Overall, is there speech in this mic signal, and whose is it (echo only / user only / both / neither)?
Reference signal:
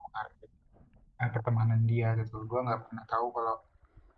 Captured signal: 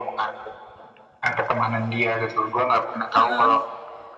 both